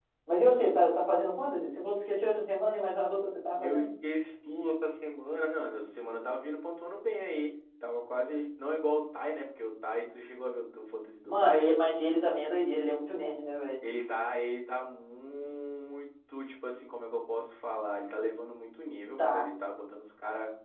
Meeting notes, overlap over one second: none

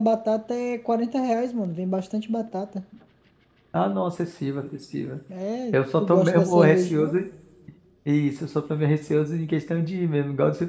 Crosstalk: present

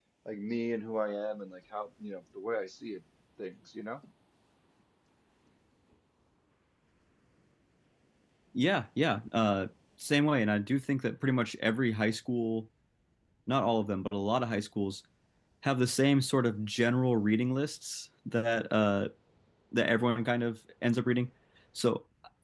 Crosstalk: none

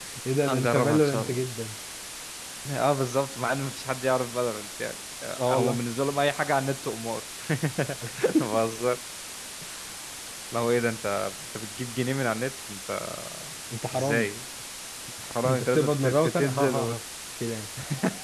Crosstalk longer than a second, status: present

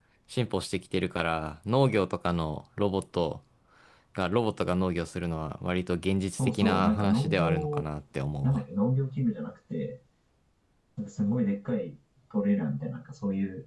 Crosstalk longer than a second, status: present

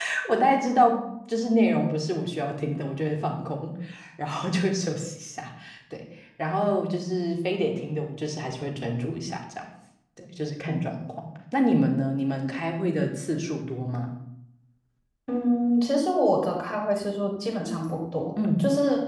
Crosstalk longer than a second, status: none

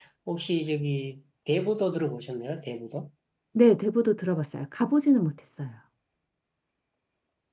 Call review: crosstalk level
none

